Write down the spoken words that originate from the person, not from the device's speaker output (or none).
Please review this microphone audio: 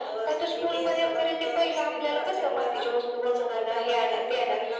none